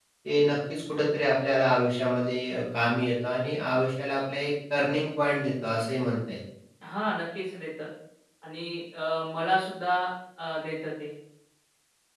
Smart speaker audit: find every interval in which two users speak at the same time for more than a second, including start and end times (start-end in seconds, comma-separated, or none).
none